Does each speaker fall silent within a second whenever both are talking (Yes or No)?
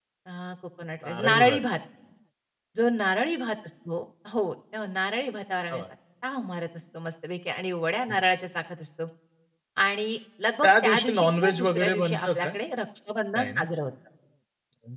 No